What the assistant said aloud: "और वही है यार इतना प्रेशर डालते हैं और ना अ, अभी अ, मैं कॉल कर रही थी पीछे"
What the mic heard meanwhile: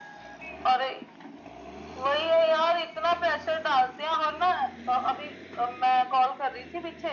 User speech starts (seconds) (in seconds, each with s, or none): none